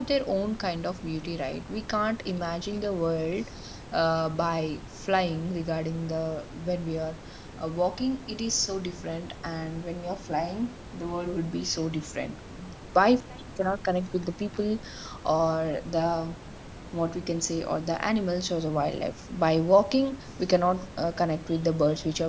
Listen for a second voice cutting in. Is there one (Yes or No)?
No